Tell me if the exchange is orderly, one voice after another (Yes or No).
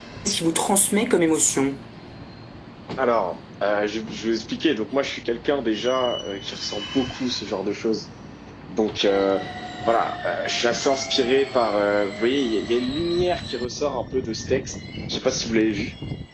Yes